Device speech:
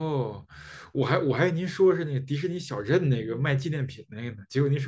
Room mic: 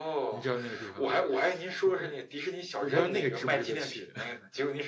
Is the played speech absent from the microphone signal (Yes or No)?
No